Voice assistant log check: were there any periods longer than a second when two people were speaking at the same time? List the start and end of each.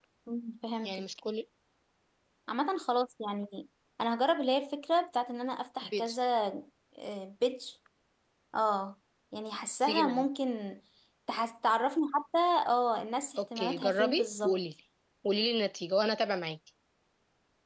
13.4-14.6

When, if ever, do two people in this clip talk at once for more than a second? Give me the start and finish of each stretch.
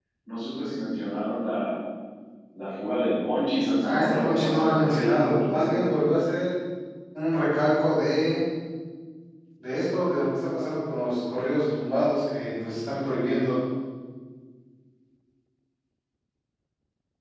3.8-5.9

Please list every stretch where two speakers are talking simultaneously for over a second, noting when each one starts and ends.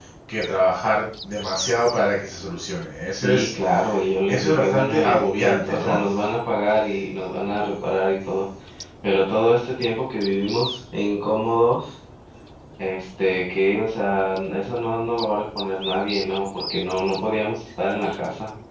4.2-6.0

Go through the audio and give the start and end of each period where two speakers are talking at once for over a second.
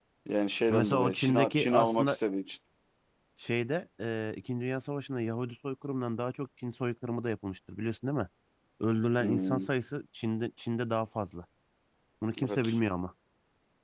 0.7-2.2

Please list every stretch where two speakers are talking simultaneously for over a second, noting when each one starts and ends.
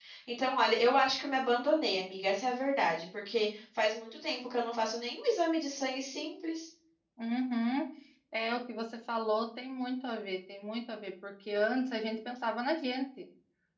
none

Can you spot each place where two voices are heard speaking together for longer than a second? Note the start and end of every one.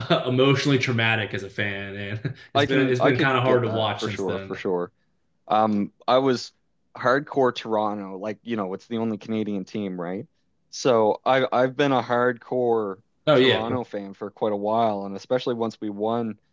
2.6-4.6

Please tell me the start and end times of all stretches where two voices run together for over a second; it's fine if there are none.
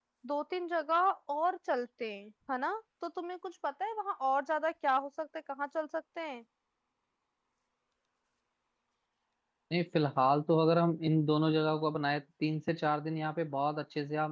none

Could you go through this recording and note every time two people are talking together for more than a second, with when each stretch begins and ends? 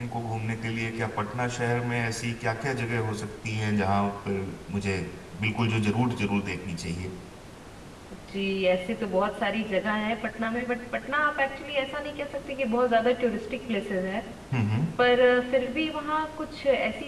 none

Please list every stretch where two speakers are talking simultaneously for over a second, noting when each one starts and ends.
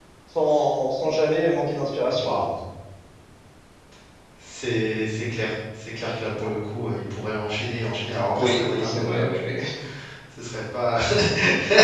8.3-9.6

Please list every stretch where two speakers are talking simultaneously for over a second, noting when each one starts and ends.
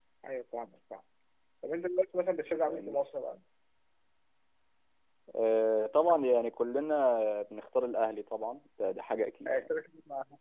none

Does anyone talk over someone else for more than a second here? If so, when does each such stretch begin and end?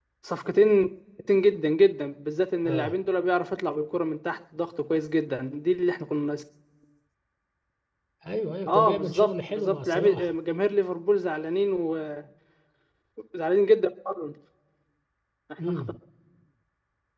8.7-10.3

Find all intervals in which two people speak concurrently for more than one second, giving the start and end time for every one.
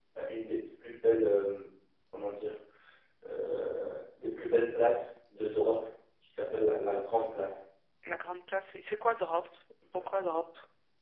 none

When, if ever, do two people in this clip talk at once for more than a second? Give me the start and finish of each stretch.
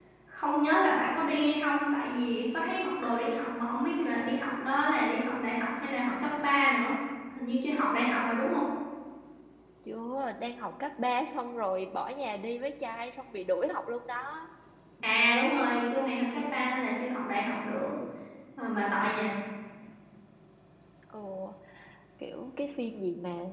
none

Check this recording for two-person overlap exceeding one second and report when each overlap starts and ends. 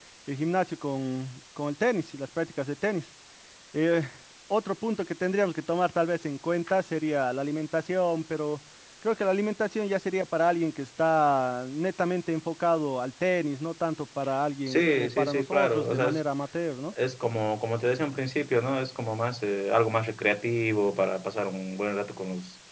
14.7-16.2

